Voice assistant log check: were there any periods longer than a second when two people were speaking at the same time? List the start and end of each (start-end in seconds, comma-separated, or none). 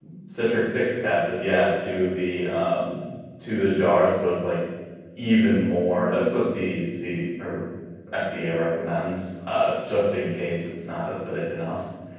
none